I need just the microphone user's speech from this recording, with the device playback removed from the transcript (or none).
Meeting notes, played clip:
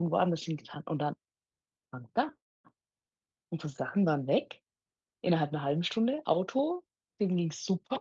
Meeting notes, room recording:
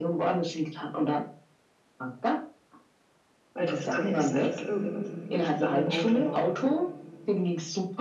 Weil es kann ja nicht sein, dass irgendwas nichts an dem Auto war.